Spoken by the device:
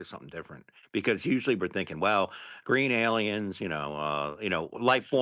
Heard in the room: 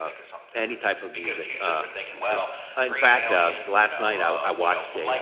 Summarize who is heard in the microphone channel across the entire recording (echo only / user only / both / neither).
both